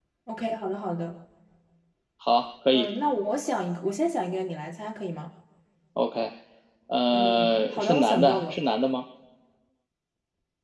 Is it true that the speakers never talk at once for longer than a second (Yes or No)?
No